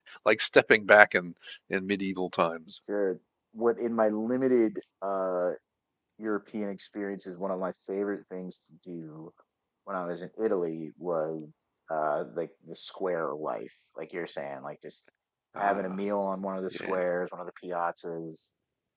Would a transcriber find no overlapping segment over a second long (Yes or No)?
Yes